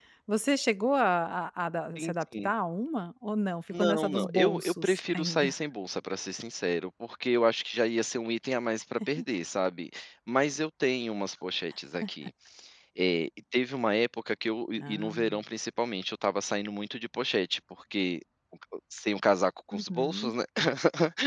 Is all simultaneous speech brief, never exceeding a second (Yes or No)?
No